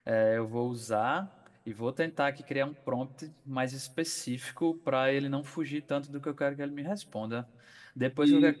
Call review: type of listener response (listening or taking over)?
listening